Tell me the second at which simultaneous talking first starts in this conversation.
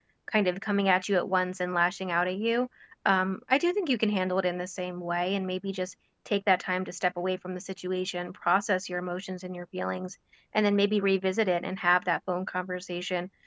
none

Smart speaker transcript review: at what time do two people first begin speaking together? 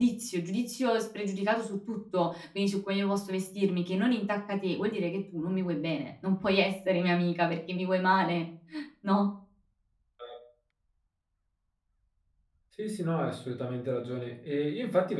none

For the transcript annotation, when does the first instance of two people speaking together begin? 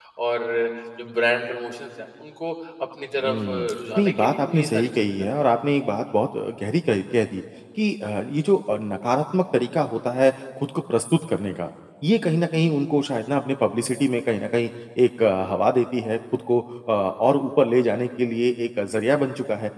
3 s

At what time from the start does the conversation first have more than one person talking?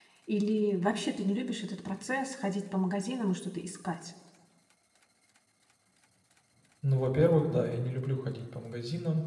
none

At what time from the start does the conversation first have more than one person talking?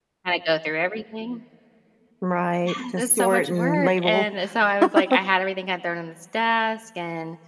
3 s

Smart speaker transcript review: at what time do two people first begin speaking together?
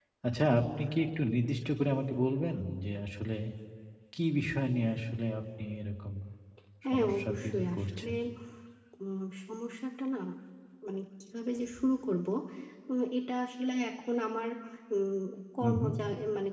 7 s

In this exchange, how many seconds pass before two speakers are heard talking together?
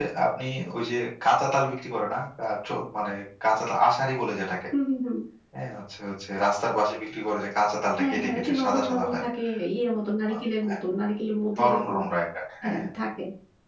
8 s

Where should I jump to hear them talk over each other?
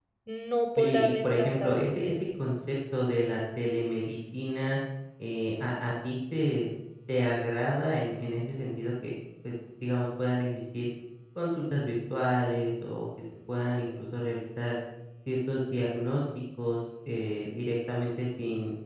1 s

